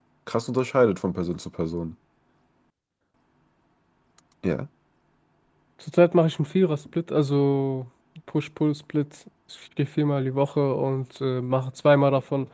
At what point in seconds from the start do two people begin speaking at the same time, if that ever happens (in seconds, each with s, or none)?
none